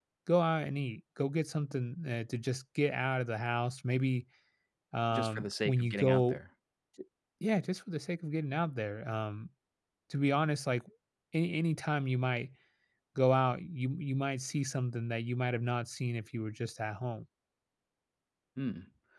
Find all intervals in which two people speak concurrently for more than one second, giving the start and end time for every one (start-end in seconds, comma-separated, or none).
5.1-6.4